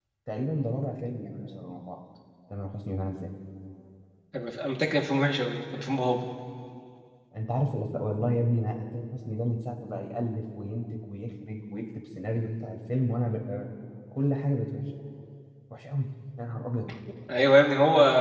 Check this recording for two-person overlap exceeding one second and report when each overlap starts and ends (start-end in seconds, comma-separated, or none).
none